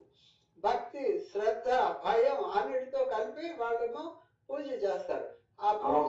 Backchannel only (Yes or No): No